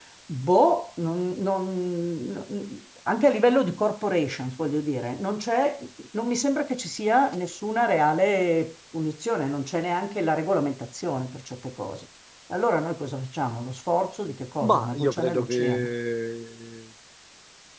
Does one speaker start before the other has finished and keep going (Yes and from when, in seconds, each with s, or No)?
Yes, from 14.6 s